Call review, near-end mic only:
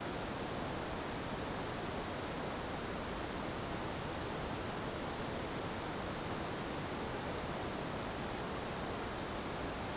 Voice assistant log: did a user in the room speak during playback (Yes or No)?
No